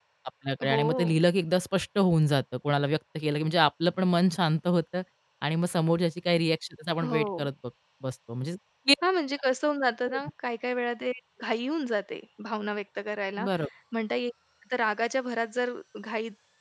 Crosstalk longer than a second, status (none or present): none